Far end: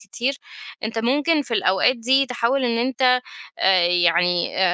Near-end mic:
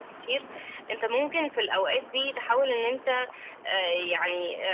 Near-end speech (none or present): none